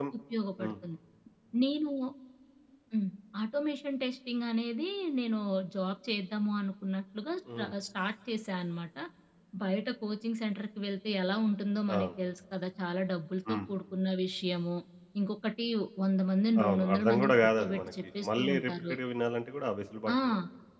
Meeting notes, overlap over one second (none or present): present